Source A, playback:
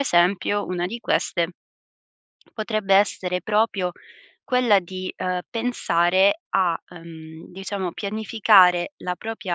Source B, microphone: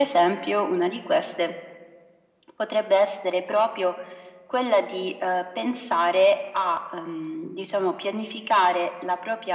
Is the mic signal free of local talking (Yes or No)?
Yes